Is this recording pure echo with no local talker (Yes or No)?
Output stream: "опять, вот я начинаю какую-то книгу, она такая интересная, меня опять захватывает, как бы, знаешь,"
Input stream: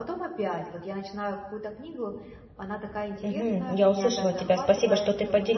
No